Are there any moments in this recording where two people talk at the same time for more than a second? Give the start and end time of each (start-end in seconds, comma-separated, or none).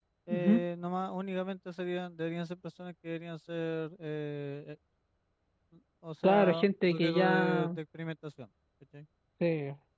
6.2-7.7